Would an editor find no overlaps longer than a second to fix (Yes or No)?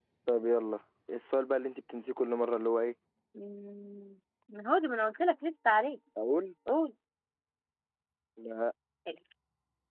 Yes